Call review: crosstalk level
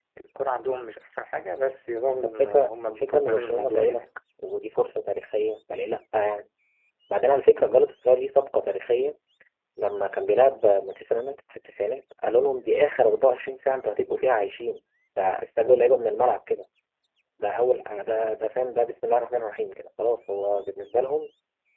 present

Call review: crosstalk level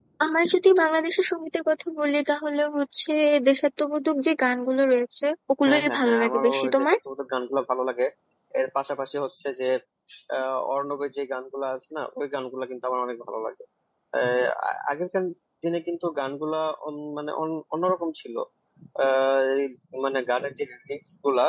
present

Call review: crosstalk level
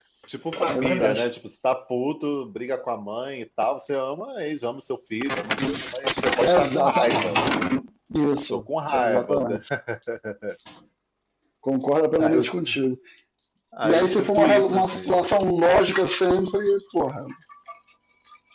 present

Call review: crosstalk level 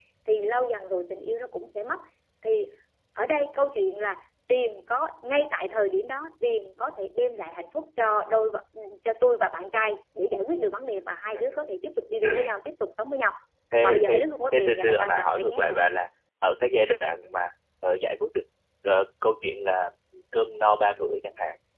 present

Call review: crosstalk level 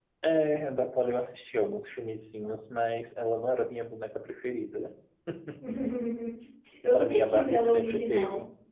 present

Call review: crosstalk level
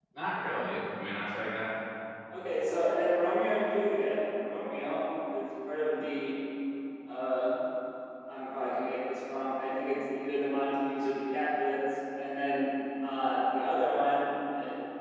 none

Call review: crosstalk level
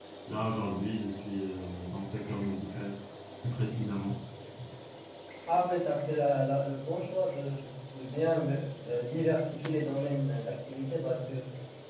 none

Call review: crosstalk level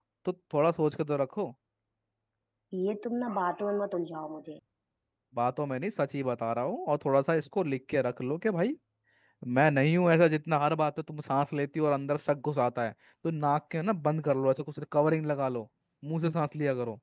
none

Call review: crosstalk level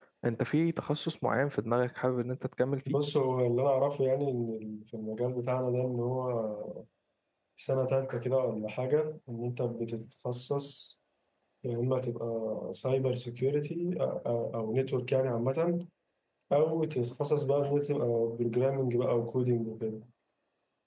none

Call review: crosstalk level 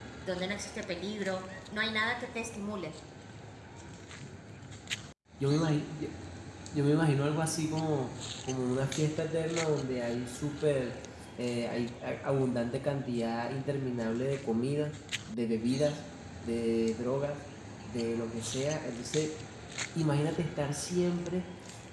none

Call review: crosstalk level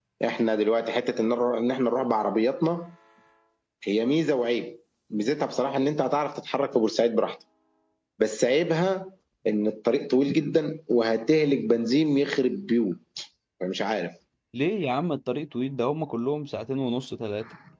none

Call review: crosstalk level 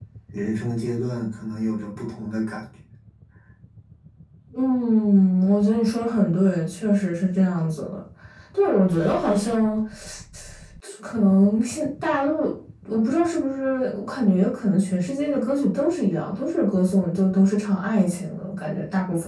none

